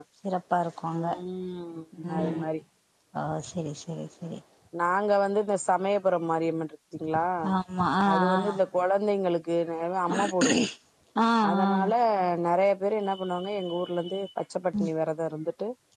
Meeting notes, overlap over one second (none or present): none